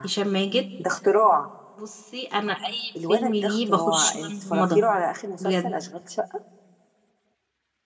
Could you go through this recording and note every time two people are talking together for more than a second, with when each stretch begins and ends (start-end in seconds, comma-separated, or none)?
3.1-4.8